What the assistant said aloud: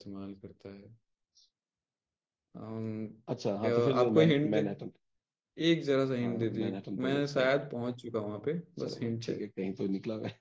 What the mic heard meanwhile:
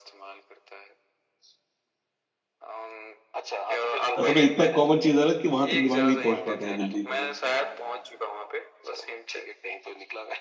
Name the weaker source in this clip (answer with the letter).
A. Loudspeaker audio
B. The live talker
A